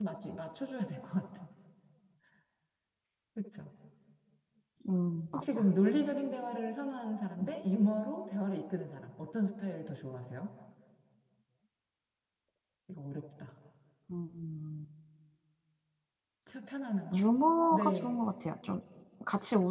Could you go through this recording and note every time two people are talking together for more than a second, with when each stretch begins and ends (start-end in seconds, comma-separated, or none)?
none